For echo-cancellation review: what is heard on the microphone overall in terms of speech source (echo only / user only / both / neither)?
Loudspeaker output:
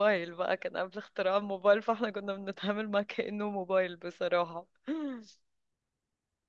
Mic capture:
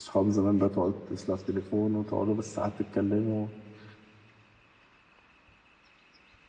user only